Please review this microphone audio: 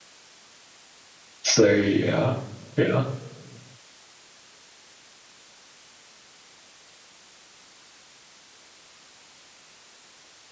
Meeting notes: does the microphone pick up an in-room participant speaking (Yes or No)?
Yes